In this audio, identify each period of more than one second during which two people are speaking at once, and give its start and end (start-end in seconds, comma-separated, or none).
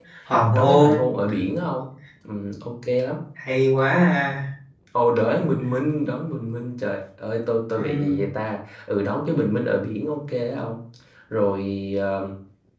none